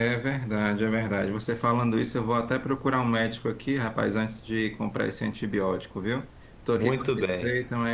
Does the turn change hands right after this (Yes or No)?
No